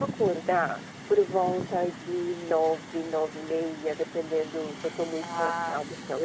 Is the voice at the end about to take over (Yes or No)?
No